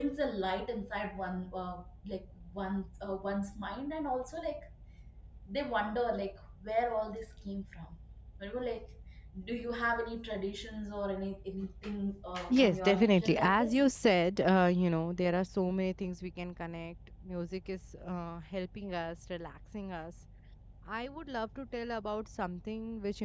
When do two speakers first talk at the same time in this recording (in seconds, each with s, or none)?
12.5 s